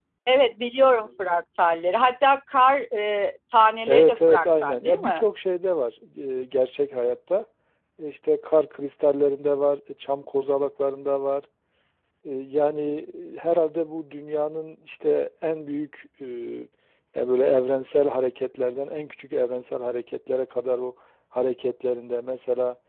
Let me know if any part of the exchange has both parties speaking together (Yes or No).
Yes